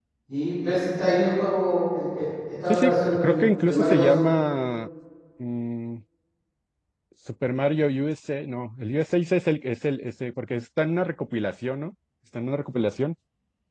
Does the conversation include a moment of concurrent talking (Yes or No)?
Yes